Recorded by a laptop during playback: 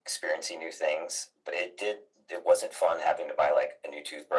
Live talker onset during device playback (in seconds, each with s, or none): none